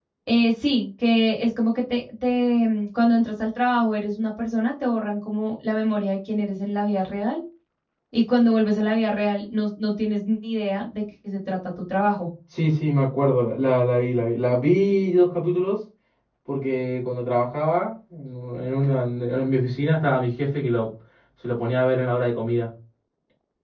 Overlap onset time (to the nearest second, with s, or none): none